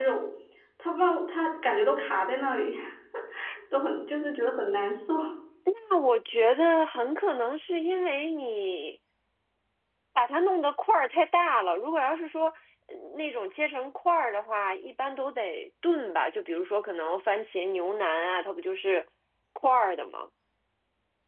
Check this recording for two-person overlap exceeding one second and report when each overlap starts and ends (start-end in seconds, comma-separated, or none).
none